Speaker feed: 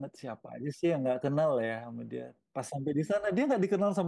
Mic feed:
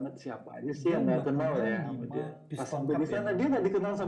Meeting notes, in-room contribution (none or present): present